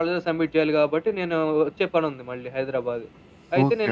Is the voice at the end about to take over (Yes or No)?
Yes